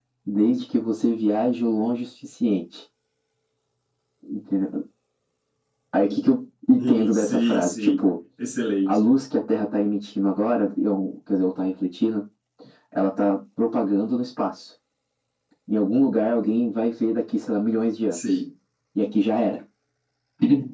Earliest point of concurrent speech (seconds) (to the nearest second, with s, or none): 7 s